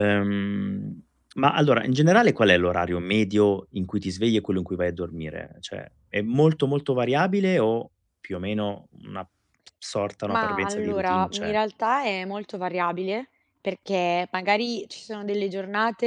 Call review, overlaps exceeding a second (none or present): present